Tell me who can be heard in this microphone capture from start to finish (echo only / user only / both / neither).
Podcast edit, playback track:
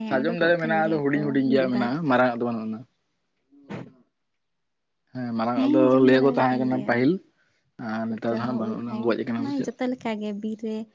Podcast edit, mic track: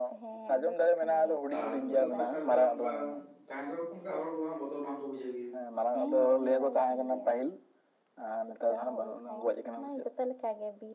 both